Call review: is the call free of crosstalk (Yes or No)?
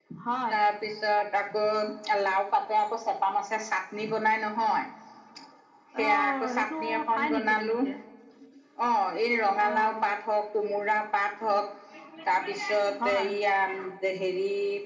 No